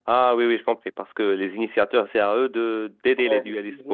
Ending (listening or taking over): taking over